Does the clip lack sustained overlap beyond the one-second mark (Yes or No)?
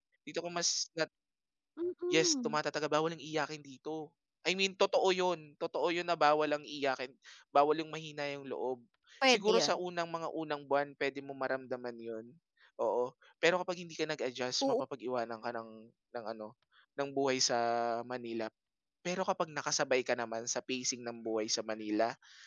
Yes